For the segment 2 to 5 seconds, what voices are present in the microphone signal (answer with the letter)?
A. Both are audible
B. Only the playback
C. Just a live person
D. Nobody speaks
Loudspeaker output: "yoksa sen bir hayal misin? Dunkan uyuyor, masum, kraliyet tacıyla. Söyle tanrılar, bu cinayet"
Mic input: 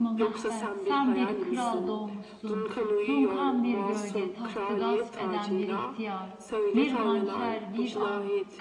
A